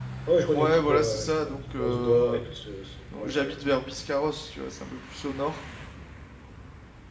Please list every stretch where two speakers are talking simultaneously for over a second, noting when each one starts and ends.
0.5-2.4

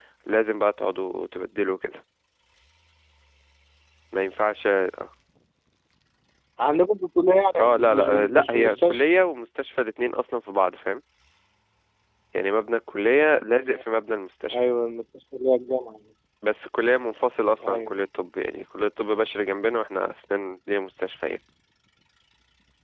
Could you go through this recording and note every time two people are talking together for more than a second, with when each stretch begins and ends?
7.6-9.0

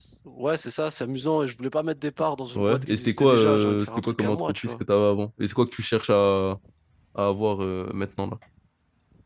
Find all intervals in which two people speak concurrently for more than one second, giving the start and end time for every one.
2.6-4.8

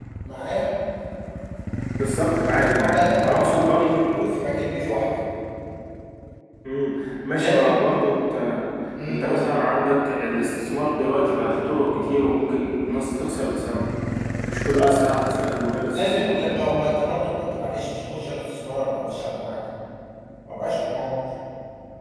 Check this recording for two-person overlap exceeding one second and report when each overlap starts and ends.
2.6-4.0

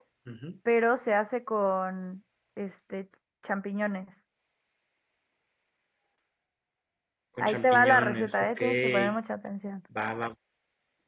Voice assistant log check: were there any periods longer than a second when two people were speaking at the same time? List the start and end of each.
7.4-9.1

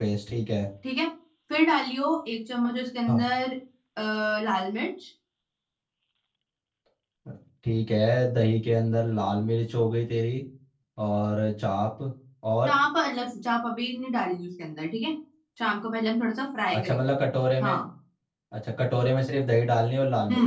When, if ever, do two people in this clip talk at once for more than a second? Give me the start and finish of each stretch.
none

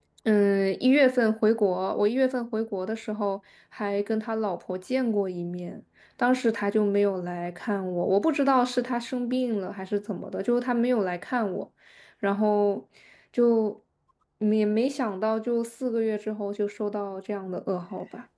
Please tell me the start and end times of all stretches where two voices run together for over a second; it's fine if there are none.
none

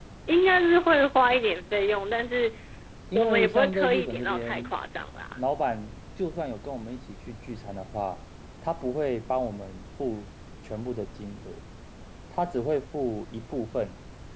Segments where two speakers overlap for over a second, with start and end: 3.1-4.7

